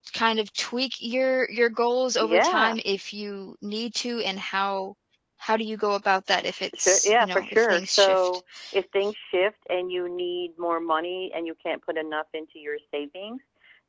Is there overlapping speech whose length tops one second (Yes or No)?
Yes